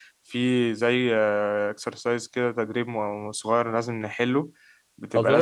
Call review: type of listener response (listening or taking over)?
taking over